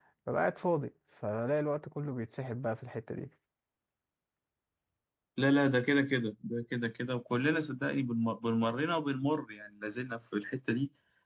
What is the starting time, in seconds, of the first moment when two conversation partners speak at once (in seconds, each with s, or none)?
none